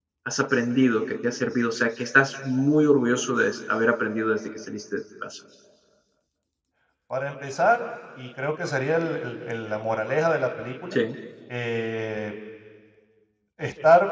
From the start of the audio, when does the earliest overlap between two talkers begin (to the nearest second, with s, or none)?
none